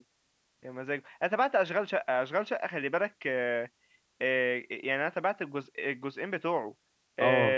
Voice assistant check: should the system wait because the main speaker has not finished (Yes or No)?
Yes